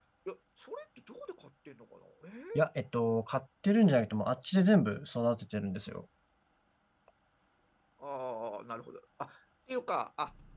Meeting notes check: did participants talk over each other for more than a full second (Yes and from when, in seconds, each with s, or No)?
No